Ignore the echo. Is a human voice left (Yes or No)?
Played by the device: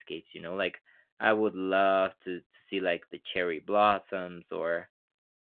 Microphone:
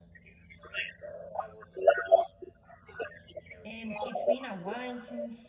Yes